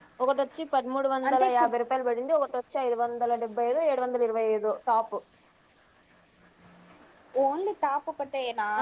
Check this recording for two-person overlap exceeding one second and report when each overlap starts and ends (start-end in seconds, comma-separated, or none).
none